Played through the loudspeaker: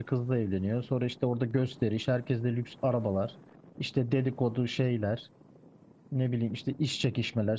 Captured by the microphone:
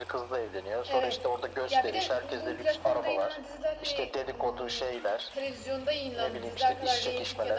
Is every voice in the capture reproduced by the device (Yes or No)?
No